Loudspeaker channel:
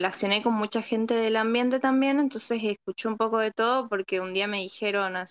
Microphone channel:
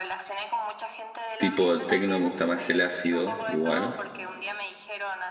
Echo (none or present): present